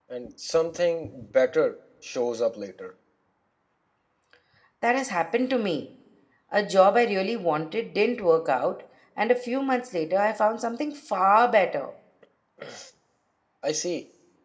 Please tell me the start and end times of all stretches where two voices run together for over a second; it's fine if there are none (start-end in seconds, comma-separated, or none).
none